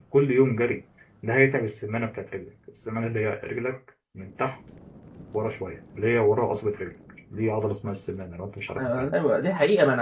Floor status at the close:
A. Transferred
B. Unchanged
A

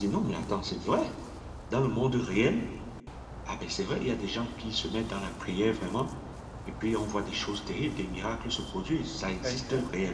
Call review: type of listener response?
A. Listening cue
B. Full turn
B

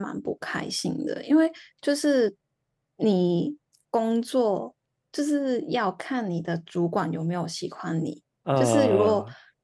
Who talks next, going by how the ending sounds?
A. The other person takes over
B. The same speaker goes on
B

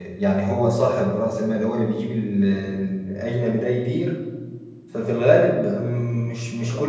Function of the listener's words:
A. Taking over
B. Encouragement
B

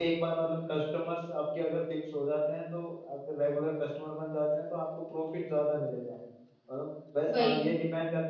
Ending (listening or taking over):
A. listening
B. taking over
A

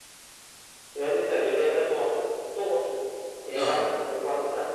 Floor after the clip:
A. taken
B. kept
B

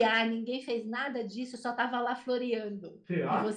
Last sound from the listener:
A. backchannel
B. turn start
A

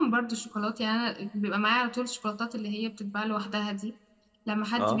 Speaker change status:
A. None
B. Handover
A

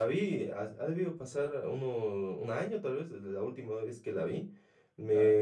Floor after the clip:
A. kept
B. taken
A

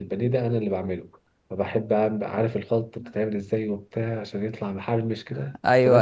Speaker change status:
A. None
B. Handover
A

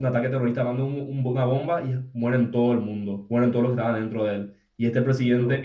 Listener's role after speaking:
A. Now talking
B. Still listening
B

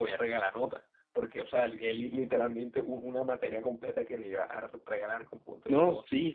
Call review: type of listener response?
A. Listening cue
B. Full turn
B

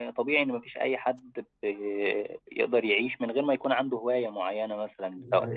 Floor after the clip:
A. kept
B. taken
A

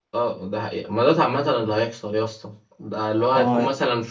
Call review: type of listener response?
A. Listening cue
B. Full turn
A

